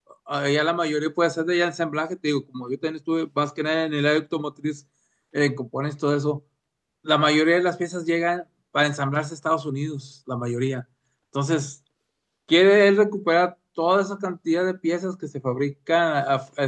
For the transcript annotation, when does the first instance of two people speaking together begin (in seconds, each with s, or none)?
none